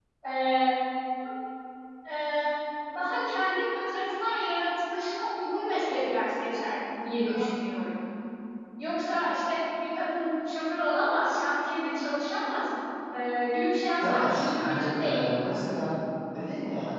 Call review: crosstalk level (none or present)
present